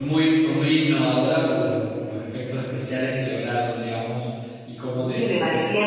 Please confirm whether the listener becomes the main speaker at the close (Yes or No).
Yes